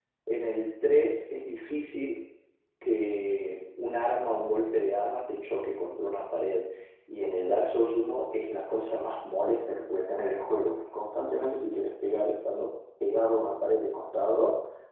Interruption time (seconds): none

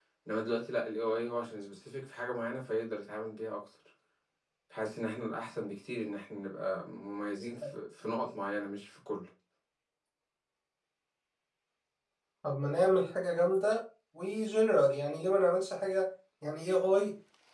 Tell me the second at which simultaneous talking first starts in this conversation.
none

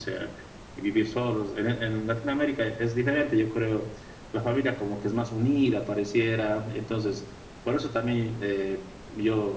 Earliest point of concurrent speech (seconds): none

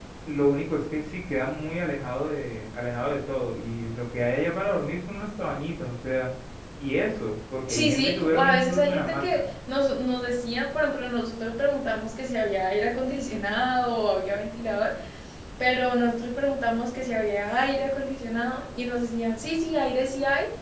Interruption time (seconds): 7.7 s

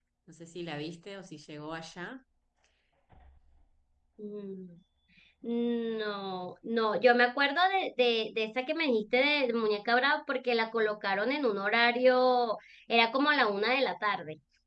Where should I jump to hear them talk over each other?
none

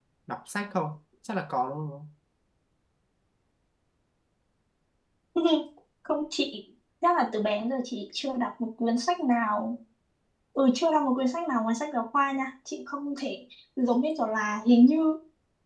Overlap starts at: none

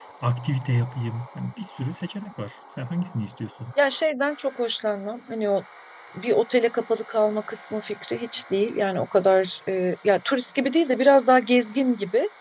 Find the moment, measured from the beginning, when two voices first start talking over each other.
none

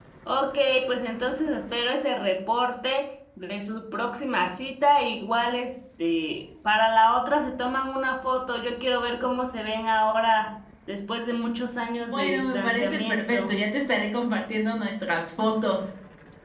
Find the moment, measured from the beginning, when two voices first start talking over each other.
12.0 s

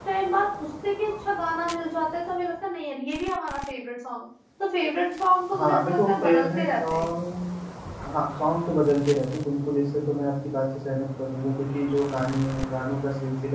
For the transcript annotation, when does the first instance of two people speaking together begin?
5.5 s

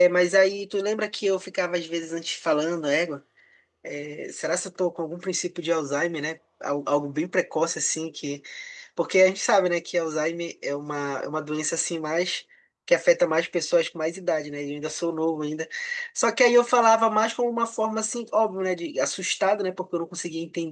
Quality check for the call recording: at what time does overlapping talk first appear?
none

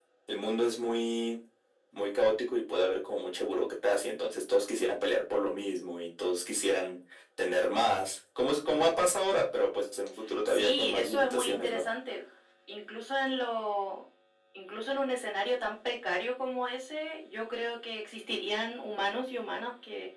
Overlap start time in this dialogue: 10.5 s

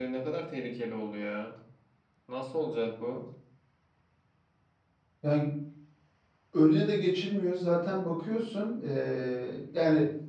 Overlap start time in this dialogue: none

